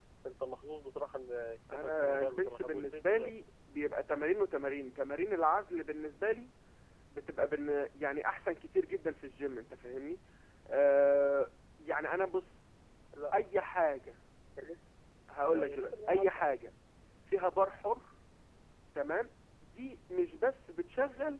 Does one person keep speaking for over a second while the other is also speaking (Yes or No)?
Yes